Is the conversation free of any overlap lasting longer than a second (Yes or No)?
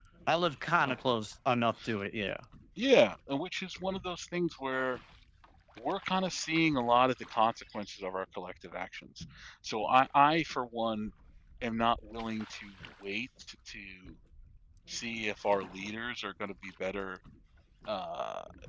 Yes